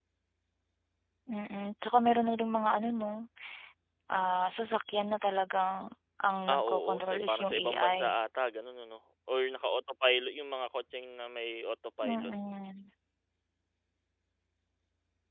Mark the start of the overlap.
6.5 s

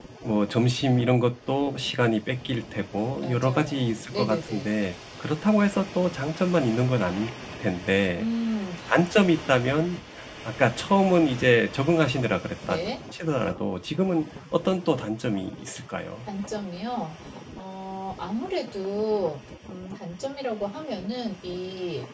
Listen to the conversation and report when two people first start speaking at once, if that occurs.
3.2 s

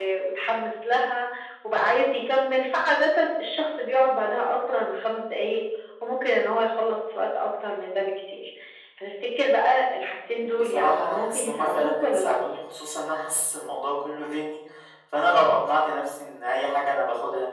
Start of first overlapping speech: 10.4 s

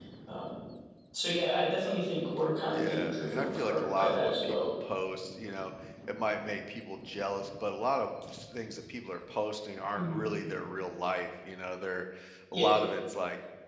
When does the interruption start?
2.7 s

